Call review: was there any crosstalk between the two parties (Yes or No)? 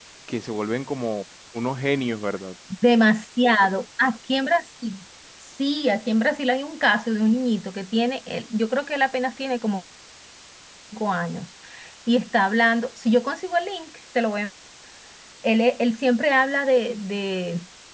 No